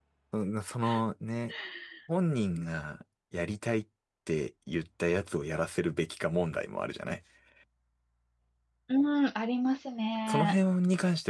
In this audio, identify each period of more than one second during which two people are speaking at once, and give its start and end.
none

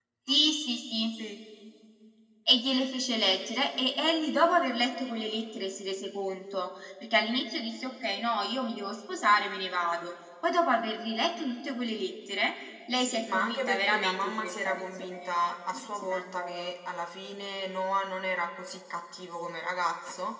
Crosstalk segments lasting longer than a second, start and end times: 12.9-16.7

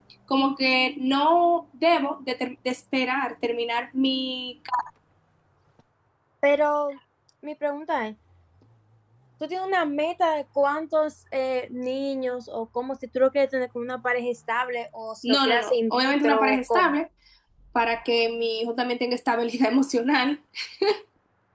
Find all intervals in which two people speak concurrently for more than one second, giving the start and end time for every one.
15.2-16.9

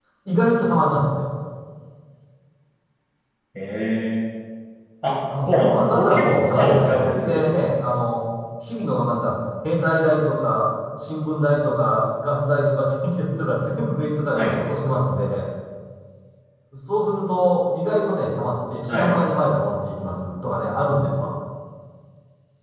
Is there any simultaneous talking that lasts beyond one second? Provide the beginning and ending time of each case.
5.4-7.5

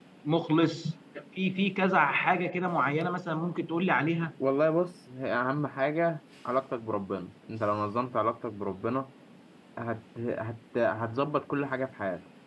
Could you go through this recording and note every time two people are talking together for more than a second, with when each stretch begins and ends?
none

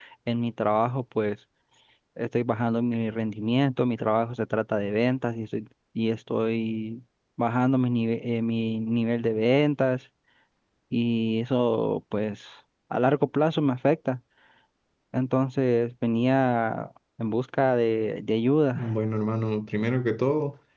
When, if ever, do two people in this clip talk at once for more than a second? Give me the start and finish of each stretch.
none

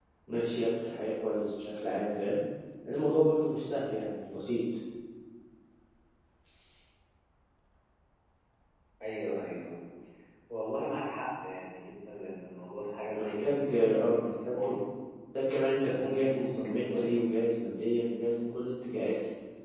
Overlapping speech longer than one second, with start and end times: 13.1-14.5, 15.8-17.2

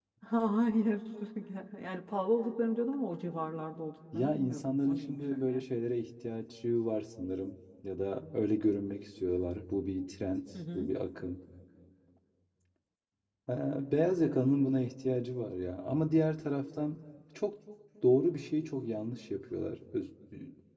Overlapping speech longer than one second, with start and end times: 4.1-5.6

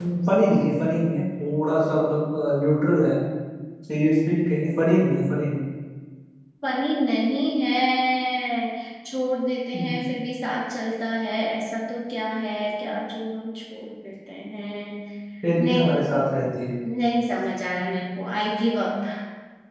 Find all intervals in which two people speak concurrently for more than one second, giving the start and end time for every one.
none

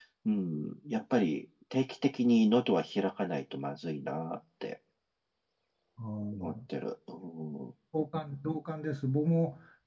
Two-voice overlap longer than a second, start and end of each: none

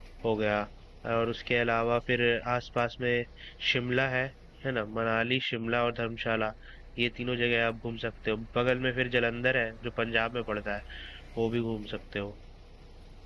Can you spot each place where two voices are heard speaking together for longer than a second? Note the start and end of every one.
none

